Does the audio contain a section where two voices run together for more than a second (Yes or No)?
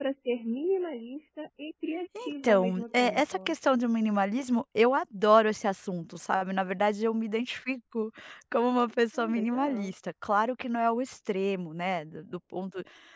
Yes